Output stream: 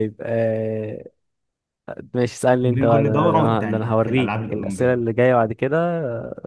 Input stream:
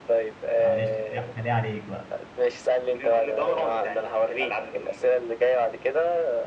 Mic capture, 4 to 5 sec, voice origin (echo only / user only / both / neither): echo only